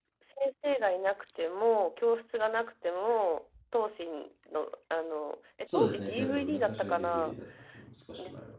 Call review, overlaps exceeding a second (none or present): present